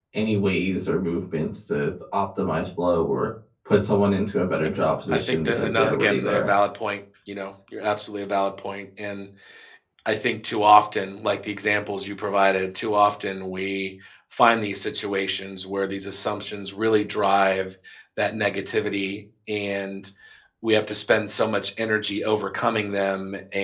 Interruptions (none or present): present